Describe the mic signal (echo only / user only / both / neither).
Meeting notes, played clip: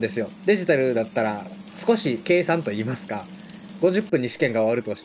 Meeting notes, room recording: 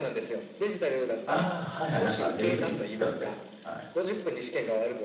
both